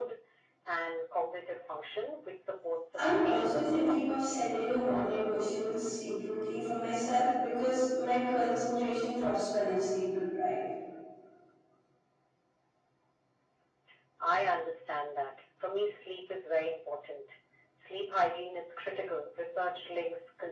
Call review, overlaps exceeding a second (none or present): present